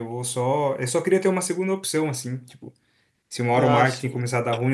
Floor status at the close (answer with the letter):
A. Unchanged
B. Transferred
A